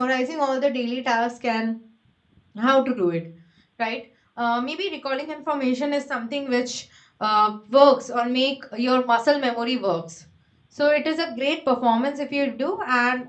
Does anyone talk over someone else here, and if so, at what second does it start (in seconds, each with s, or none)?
none